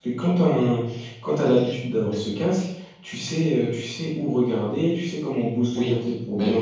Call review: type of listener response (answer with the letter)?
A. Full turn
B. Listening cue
A